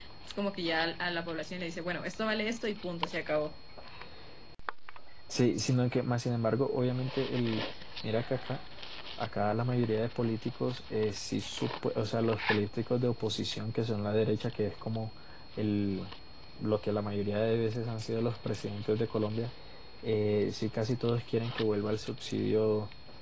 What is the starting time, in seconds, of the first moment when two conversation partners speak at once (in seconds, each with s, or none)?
none